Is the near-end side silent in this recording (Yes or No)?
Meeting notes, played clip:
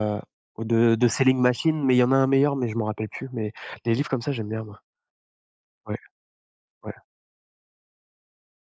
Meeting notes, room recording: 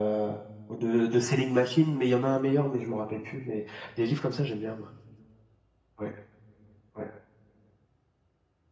Yes